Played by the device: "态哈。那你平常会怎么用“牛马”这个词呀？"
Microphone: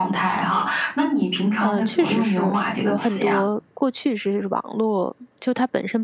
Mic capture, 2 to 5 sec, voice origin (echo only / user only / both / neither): both